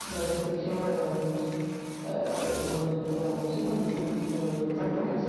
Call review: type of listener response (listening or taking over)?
taking over